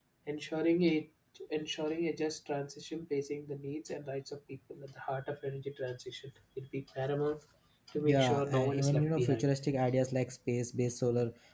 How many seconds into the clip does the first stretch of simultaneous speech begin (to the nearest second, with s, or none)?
8 s